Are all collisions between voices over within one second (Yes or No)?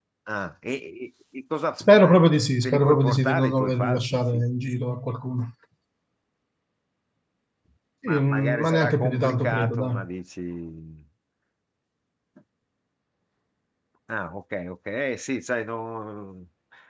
No